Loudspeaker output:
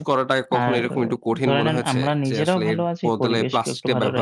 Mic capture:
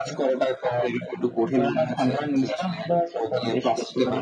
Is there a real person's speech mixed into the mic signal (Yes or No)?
No